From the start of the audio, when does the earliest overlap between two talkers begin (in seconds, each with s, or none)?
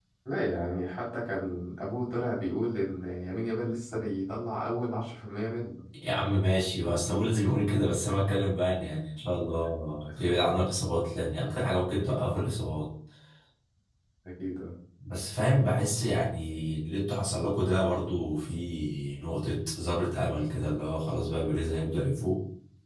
none